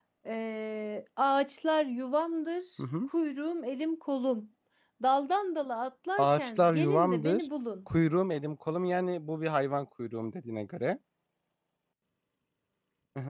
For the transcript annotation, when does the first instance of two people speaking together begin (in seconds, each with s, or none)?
6.2 s